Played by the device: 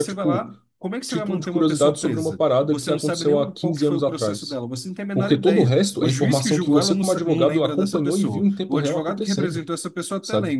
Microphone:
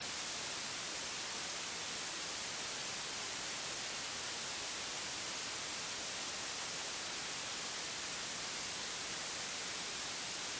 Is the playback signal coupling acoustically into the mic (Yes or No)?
No